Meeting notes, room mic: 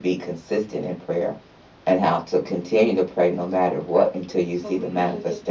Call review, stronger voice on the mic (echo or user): echo